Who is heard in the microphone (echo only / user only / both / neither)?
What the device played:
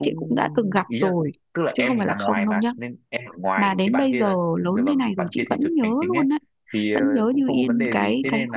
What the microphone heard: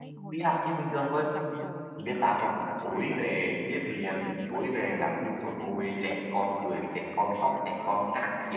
both